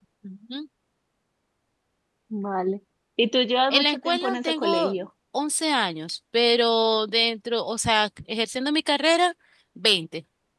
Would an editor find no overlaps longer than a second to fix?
No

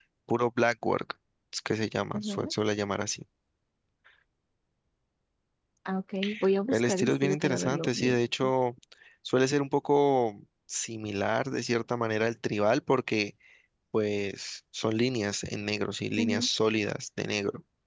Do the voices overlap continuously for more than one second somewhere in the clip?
Yes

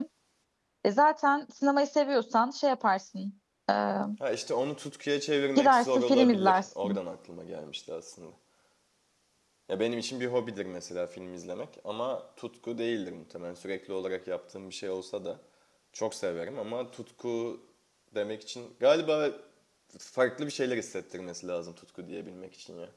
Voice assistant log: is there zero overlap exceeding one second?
No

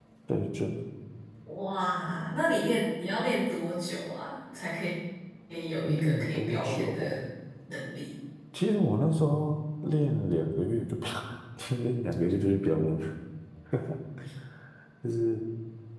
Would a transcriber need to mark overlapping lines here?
Yes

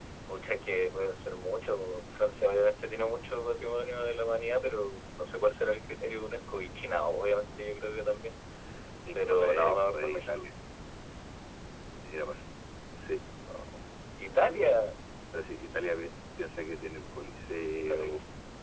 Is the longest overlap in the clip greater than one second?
Yes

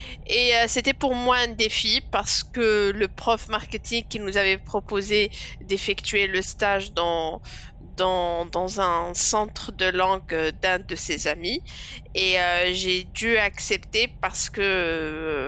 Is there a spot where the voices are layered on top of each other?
No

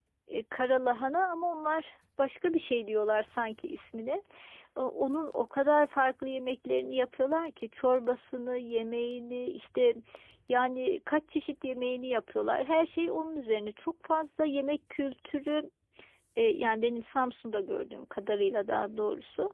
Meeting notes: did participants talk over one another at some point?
No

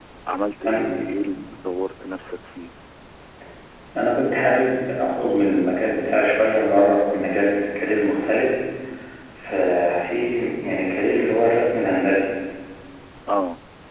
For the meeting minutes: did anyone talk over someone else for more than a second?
No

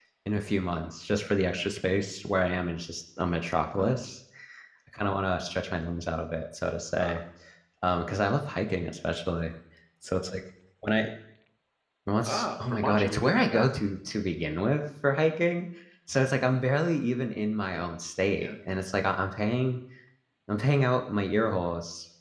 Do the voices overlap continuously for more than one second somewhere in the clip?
Yes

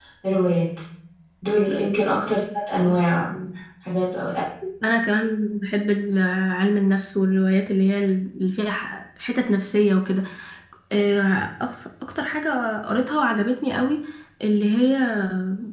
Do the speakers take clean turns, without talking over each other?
Yes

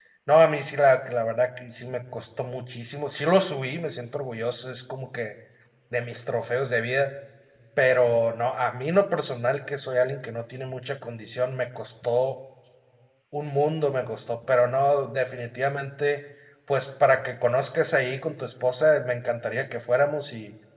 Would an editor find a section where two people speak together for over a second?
No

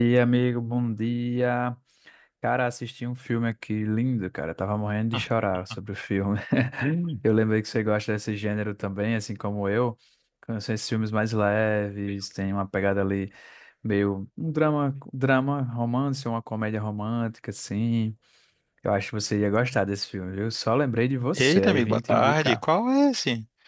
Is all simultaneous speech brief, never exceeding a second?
No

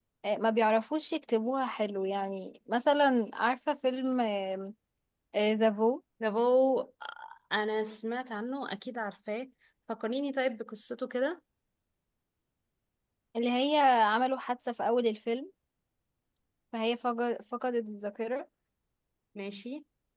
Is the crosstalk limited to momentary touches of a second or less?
Yes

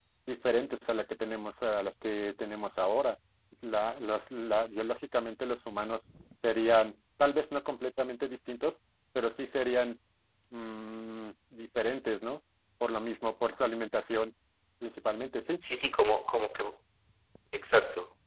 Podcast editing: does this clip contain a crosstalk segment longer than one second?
No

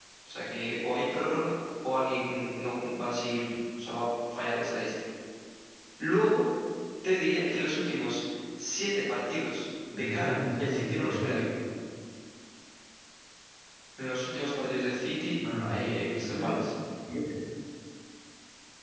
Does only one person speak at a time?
No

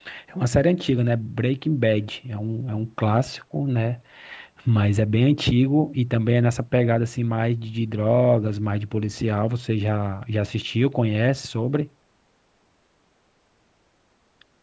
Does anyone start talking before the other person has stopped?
No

